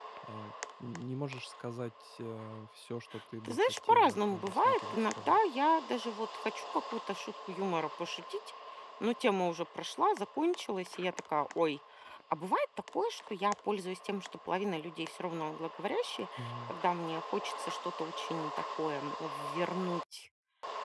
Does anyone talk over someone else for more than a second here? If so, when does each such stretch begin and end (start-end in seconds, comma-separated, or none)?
3.5-5.4